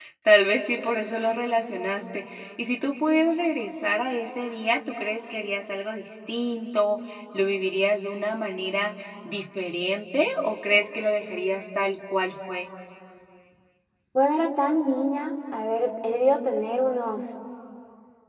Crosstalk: none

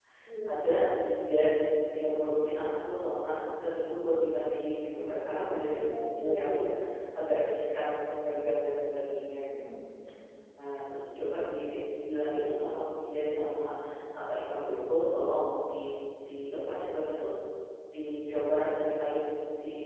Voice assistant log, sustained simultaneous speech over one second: present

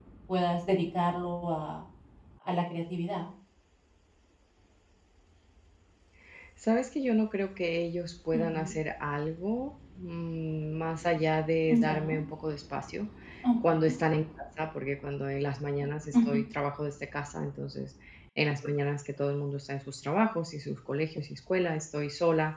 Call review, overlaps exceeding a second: none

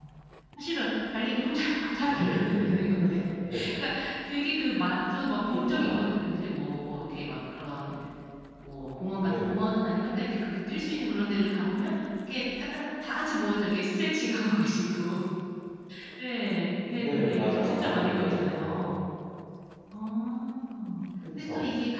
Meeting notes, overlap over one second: present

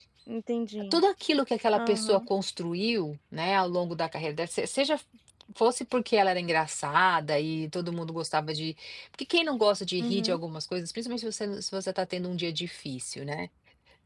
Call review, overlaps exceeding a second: none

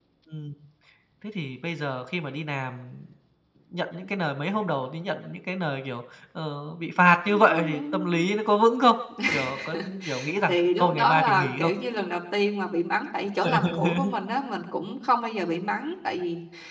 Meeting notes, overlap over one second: present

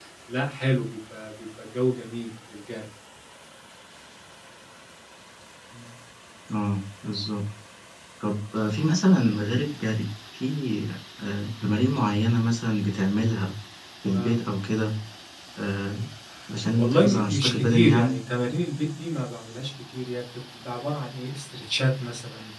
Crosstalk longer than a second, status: present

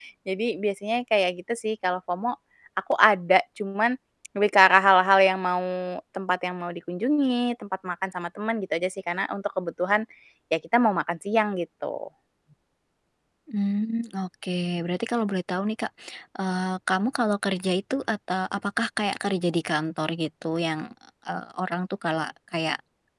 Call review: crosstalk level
none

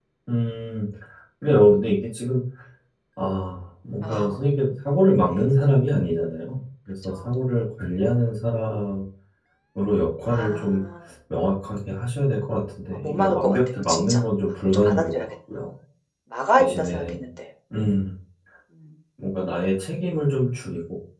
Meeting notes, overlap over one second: present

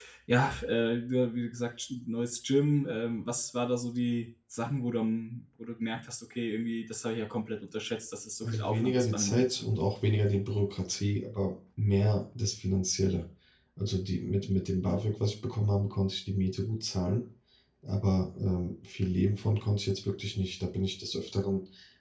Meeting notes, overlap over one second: present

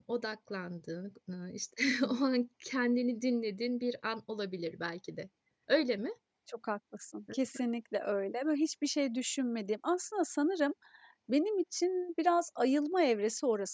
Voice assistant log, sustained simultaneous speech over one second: none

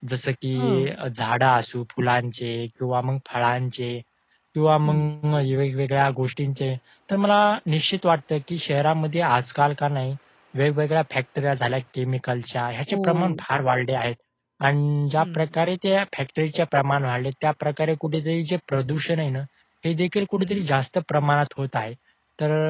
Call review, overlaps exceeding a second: none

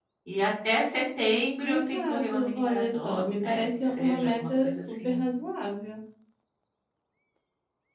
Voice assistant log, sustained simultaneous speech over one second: present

